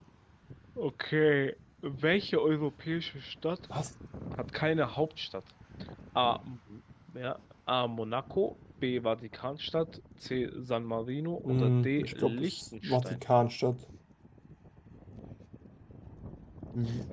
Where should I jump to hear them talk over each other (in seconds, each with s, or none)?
11.4 s